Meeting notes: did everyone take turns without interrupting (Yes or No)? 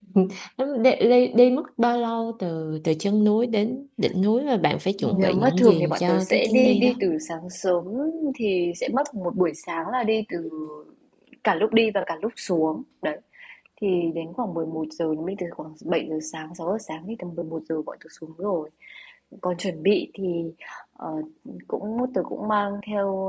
No